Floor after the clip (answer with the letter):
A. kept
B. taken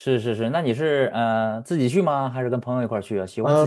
B